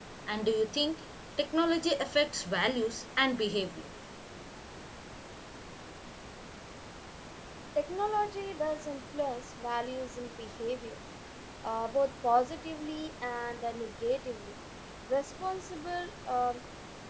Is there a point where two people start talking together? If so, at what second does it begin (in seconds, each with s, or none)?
none